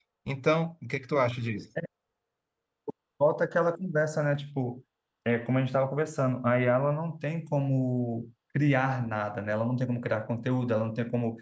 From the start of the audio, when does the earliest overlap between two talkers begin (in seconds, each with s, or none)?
none